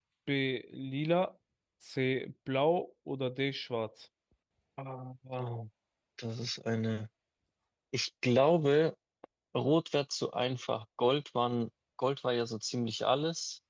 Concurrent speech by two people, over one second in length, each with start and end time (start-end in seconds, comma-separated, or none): none